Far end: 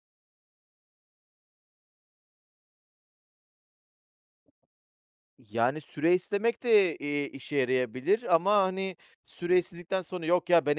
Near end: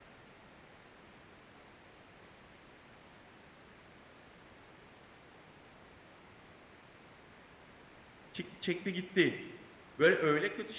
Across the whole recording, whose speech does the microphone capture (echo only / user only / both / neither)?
user only